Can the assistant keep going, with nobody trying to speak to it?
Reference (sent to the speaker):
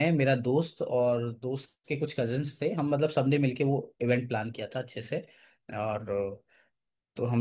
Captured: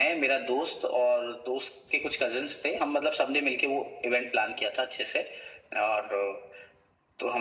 Yes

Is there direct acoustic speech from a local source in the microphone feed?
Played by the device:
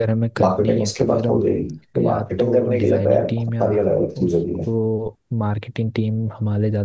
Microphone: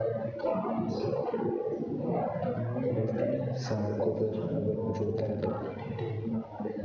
Yes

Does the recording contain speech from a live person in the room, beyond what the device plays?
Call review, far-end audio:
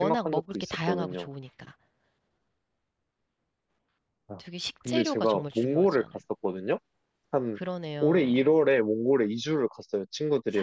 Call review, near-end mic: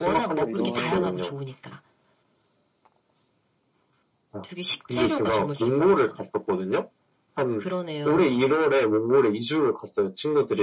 Yes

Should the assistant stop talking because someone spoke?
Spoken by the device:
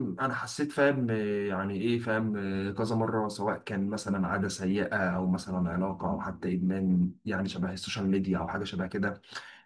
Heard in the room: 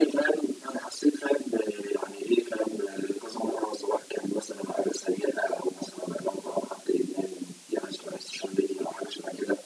No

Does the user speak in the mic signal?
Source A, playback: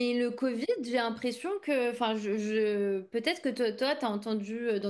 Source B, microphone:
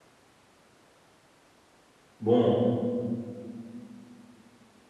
Yes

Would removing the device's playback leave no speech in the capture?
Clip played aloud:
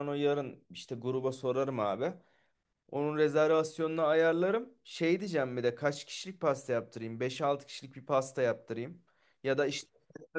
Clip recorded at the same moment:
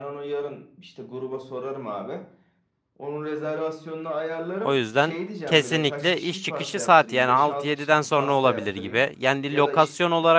No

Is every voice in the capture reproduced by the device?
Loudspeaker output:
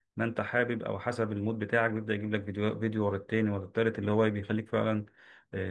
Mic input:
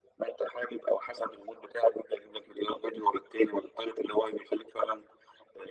Yes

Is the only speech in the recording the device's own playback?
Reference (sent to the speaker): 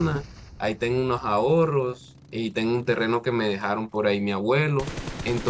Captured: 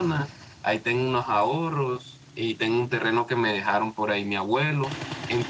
Yes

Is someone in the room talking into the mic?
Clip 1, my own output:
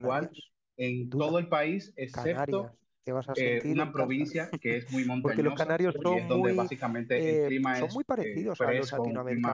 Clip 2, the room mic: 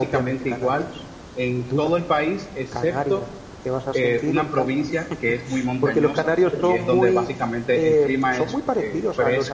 No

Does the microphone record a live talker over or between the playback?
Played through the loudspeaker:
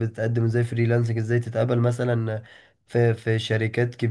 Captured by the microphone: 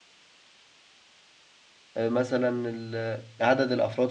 Yes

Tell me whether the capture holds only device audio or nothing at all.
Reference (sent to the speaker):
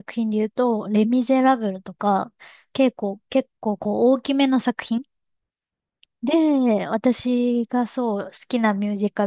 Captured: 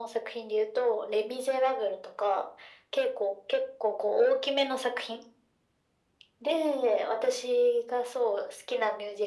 Yes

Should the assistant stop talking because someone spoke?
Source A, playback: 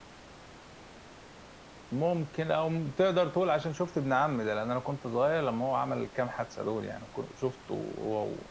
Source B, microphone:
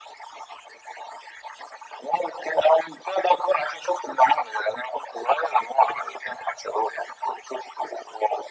No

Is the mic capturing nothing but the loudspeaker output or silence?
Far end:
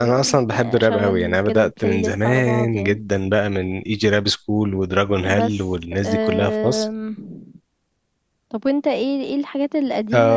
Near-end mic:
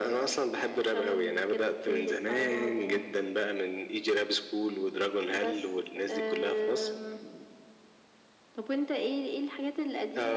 Yes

